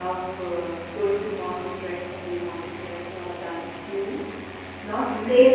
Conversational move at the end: listening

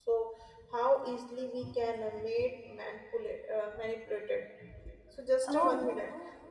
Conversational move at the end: listening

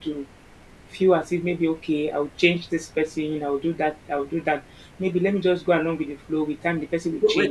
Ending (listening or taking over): taking over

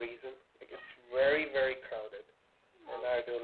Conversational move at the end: listening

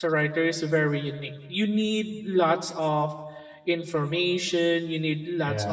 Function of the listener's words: listening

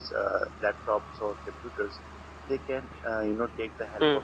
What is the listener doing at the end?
listening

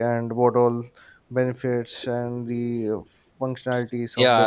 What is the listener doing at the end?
taking over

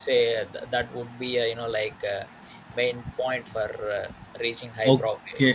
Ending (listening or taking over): taking over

